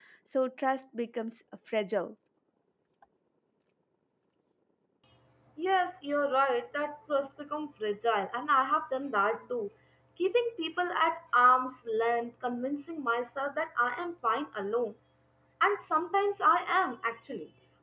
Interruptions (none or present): none